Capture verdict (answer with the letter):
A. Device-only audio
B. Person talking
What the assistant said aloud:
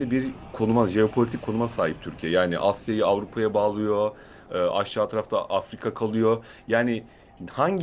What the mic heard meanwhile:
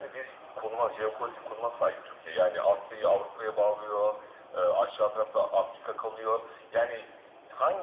A